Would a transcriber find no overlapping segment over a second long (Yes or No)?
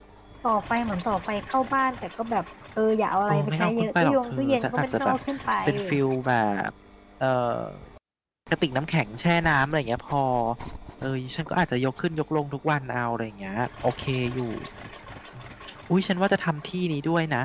No